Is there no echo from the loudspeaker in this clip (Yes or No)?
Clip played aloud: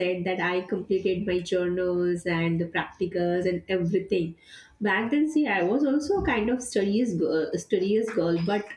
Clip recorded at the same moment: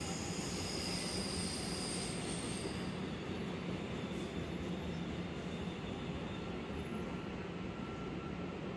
Yes